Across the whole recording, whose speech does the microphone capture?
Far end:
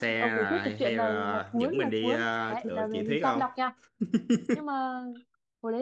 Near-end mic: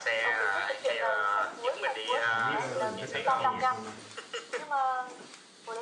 both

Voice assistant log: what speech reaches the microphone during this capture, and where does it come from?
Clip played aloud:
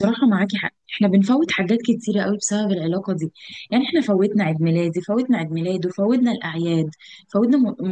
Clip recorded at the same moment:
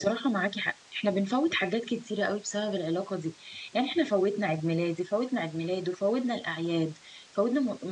echo only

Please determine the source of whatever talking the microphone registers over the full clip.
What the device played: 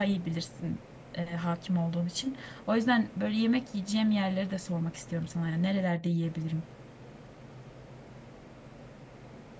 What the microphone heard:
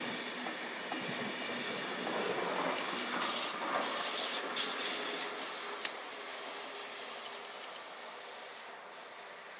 neither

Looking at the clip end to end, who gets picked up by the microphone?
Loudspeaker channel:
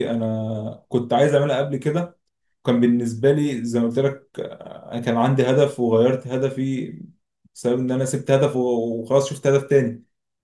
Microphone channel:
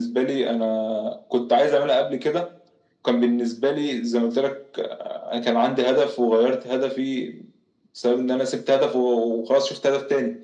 echo only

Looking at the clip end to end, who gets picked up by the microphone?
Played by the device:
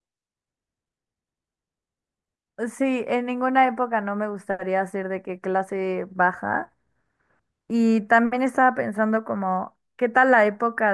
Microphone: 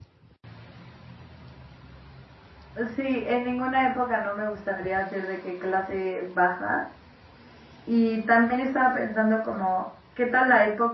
echo only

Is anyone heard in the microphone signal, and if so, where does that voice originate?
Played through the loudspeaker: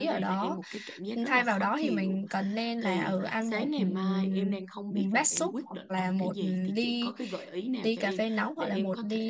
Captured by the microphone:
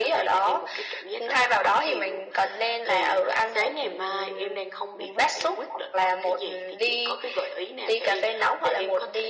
echo only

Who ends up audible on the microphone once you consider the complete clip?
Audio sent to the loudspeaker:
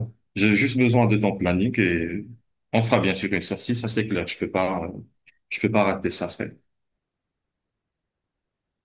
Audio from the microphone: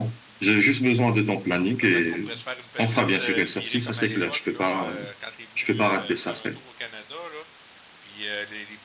both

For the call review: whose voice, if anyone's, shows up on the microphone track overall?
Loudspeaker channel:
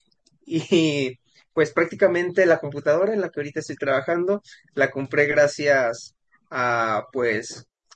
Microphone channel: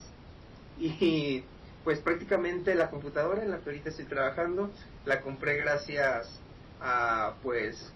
echo only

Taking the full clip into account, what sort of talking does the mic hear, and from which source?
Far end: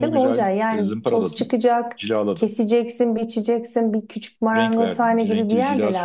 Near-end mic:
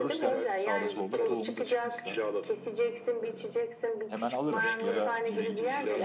both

